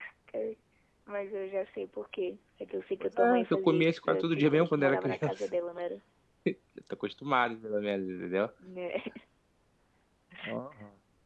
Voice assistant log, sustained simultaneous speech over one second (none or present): present